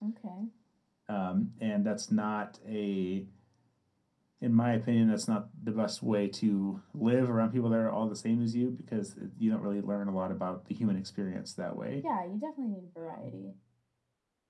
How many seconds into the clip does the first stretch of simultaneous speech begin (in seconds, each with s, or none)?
none